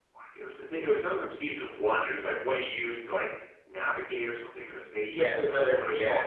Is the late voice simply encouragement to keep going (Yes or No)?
No